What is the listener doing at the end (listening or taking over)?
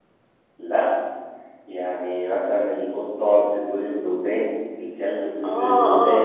taking over